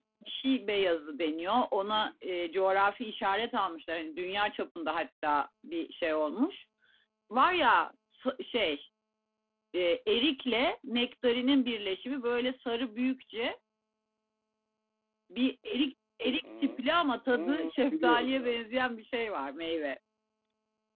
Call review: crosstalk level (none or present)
present